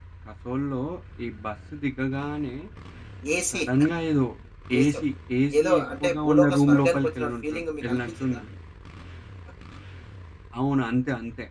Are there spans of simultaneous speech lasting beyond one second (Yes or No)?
Yes